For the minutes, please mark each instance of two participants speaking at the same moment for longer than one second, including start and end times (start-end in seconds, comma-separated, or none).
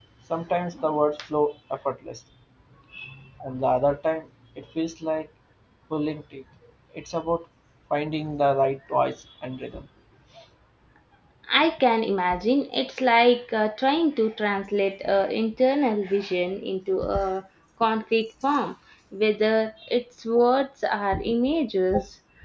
none